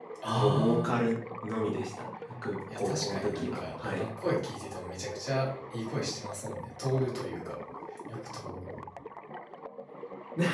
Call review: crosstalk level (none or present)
present